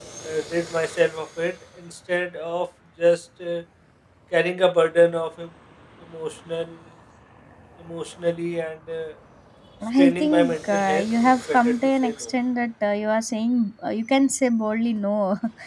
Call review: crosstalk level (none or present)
present